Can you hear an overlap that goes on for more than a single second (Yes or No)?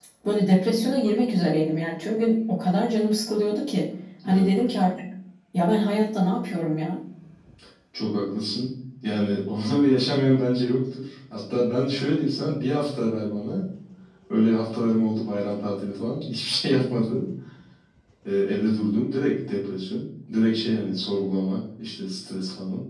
No